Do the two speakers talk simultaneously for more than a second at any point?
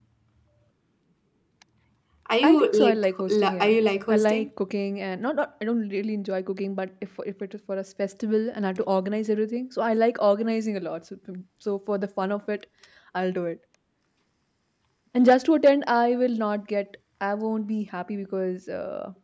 Yes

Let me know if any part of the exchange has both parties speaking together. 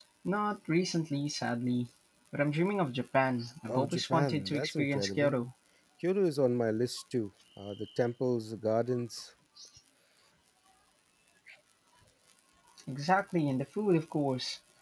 Yes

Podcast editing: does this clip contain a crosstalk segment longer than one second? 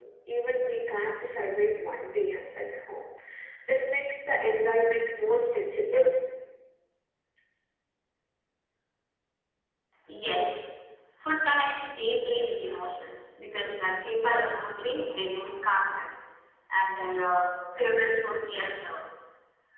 No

